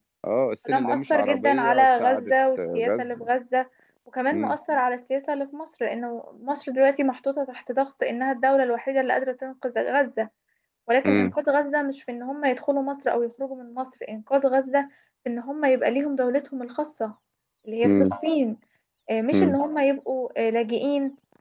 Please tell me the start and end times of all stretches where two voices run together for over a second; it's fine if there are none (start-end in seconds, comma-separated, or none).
0.7-3.3